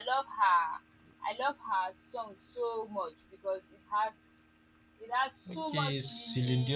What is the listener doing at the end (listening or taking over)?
taking over